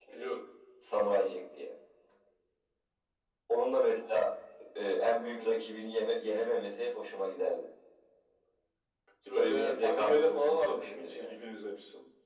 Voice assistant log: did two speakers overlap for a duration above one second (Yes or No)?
Yes